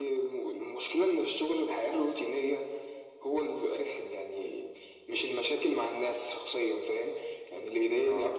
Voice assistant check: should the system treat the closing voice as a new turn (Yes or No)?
No